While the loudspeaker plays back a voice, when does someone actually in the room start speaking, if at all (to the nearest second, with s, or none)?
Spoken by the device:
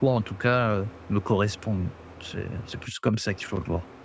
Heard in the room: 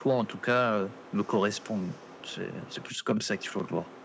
none